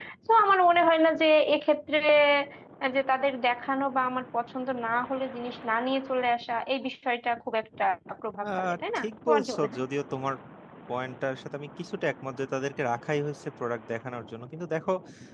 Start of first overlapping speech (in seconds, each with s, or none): 8.4 s